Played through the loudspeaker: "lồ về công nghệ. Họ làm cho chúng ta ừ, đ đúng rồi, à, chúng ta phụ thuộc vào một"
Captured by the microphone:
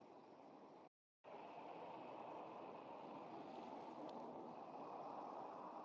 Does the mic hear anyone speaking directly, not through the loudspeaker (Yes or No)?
No